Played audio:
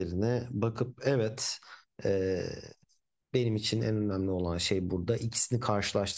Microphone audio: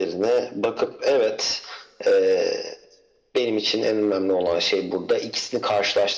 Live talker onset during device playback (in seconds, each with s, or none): none